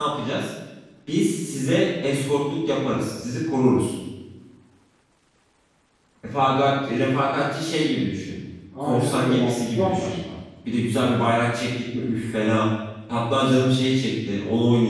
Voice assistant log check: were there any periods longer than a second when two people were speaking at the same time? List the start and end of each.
8.8-10.2

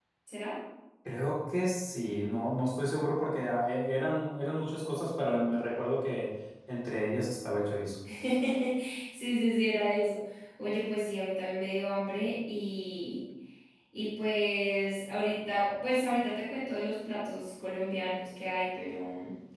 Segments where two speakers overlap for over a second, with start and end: none

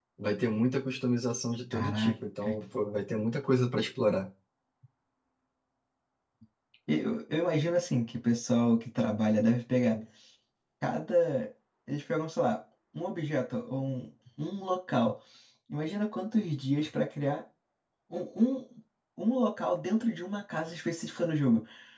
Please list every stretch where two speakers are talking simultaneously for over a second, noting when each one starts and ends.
none

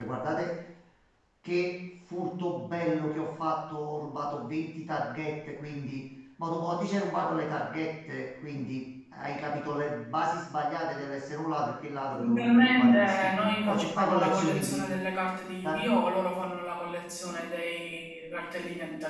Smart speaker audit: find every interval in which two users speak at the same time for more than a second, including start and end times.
12.1-14.9

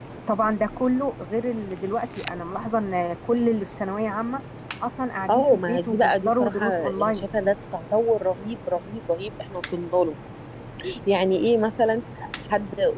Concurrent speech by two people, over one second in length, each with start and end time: 5.3-7.3

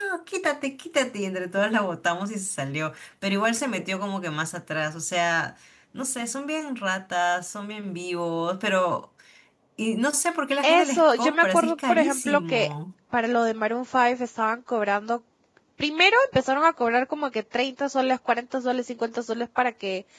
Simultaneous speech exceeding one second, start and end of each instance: 10.6-12.7

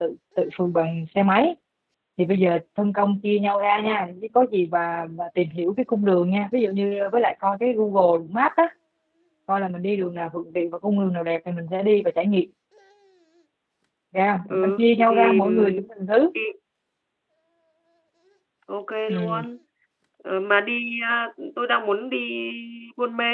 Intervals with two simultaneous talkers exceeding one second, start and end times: 14.5-15.8

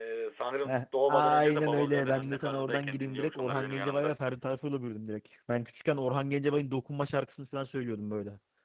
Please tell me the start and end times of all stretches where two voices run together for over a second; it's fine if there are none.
0.6-4.1

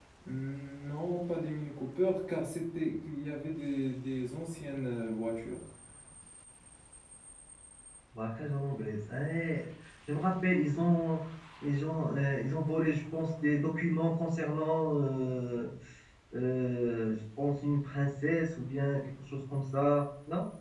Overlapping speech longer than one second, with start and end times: none

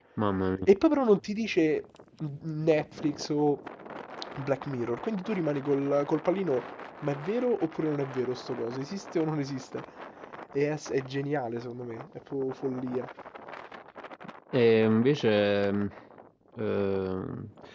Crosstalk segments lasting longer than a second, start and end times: none

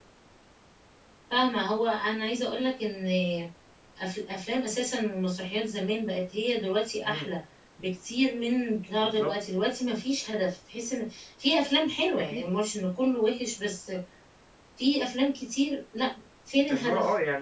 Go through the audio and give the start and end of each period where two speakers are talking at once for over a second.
none

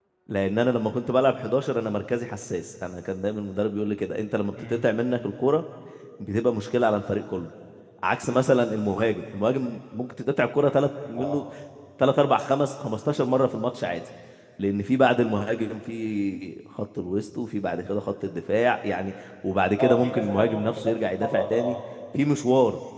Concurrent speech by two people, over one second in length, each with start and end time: 19.8-21.8

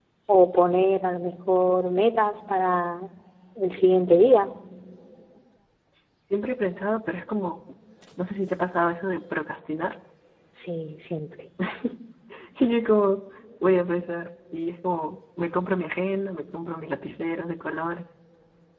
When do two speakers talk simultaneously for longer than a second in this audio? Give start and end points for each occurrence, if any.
none

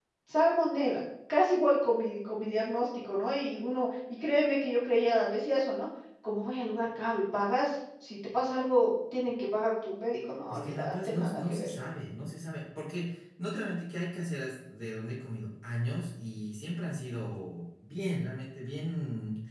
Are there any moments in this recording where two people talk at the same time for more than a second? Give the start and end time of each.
10.5-11.7

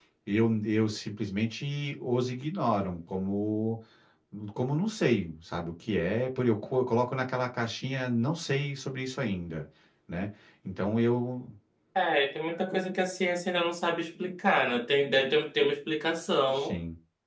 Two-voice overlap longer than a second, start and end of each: none

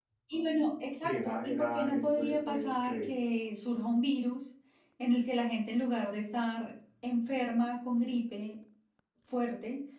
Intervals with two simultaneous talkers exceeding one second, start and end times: 1.0-3.1

